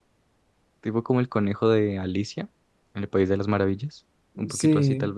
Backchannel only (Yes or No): No